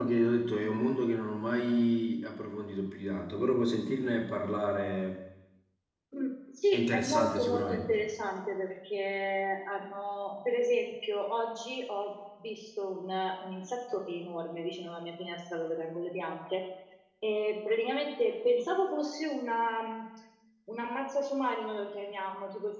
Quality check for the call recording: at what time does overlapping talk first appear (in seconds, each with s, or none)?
6.7 s